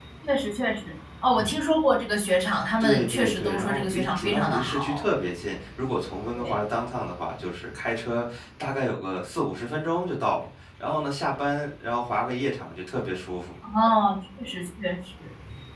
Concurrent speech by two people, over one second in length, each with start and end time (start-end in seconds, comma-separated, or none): 2.8-5.1